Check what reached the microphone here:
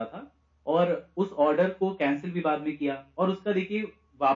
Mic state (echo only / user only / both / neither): echo only